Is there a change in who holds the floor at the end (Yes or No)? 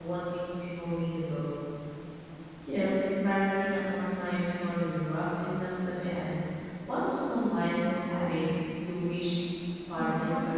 Yes